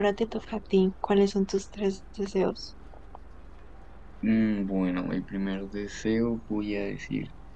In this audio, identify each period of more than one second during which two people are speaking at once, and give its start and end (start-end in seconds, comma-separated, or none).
none